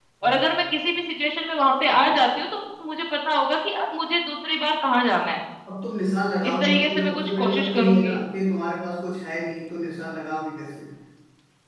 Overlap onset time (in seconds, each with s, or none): 6.5 s